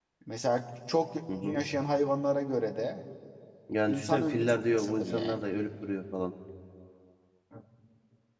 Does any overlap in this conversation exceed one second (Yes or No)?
Yes